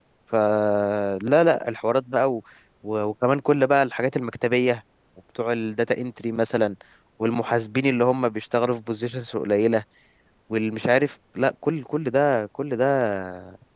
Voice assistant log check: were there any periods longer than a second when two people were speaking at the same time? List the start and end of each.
none

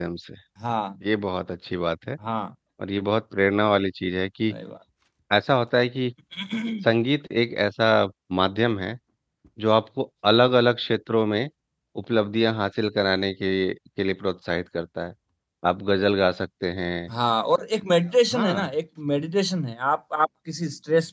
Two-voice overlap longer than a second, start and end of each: none

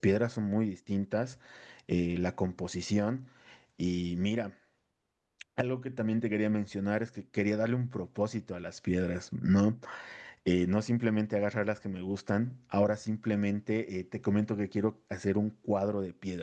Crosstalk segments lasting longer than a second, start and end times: none

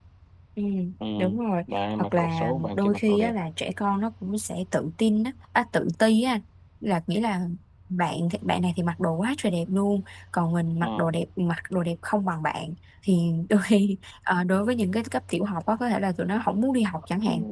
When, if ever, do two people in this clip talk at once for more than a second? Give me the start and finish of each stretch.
1.8-3.3

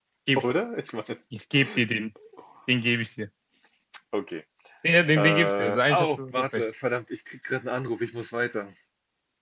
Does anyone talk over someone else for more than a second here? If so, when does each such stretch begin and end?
5.2-6.6

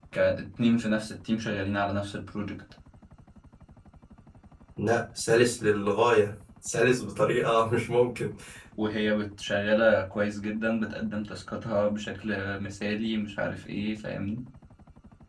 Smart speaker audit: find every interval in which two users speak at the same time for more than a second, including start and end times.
none

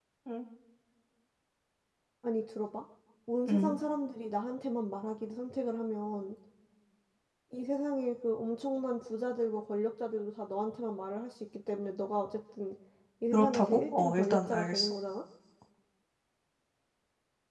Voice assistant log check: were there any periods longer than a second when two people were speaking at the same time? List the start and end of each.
13.3-14.9

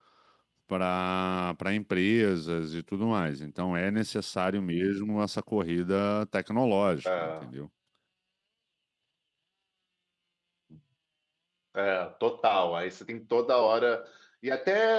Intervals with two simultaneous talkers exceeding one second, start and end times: none

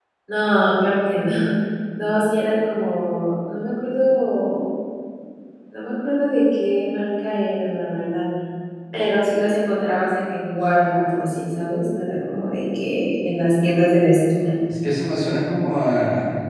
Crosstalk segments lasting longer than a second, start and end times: none

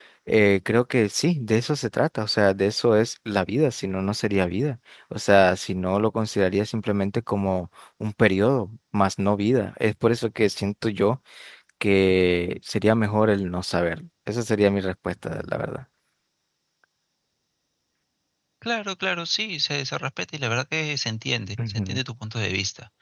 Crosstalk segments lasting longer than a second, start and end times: none

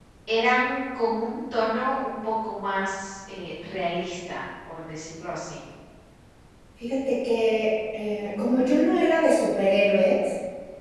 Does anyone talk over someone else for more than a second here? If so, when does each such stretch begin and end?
none

